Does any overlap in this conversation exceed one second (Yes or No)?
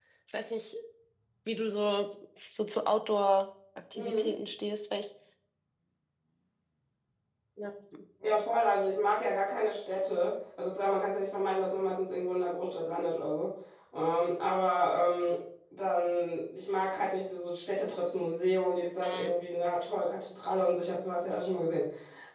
No